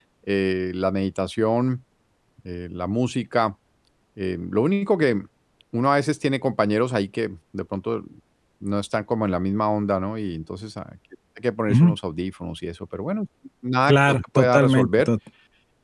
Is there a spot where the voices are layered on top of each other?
Yes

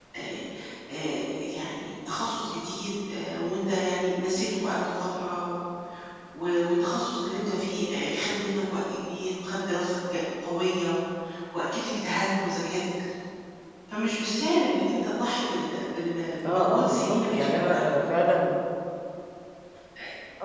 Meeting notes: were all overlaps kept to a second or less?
No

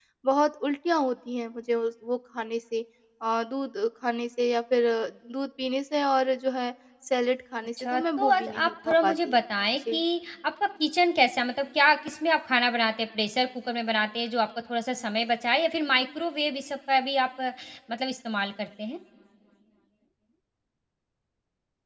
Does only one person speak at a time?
No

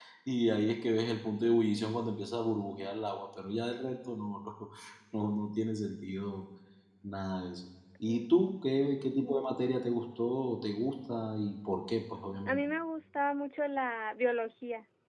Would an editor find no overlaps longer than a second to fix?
Yes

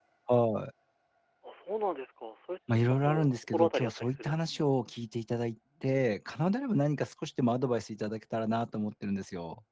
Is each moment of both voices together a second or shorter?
No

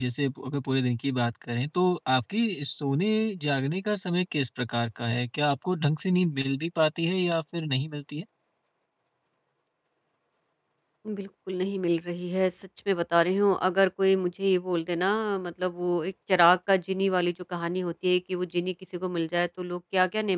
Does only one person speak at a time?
Yes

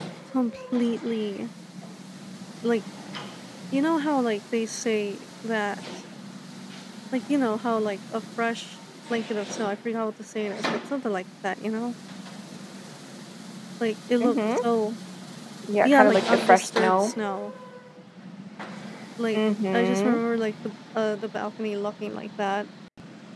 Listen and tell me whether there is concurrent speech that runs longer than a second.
Yes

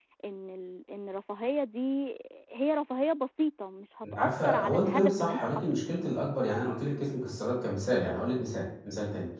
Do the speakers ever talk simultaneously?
Yes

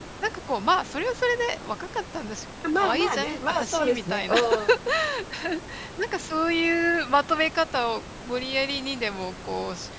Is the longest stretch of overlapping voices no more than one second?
No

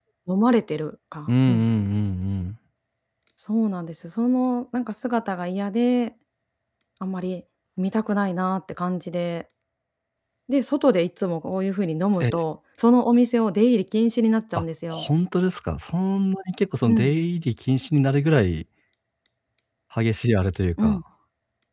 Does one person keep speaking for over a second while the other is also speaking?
No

